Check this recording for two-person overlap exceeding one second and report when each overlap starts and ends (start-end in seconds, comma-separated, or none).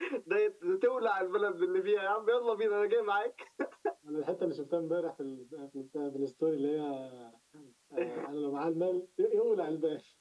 none